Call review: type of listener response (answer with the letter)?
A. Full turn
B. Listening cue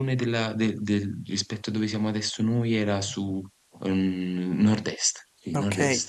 A